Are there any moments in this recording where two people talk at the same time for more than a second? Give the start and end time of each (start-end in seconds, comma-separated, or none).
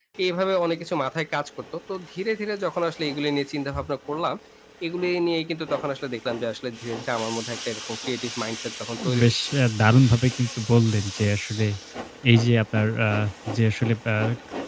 none